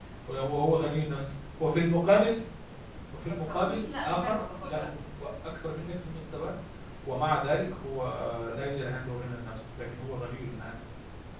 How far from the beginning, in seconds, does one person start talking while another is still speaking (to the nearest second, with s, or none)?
3 s